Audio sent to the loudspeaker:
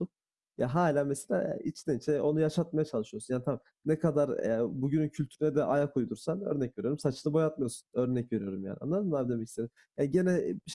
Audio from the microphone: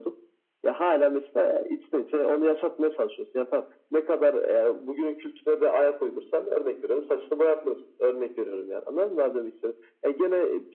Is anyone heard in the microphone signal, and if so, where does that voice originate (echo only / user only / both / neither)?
echo only